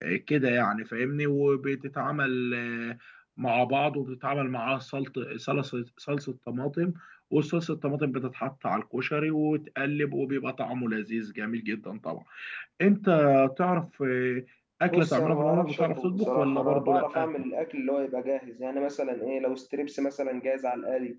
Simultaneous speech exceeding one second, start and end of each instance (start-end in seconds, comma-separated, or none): 14.9-17.3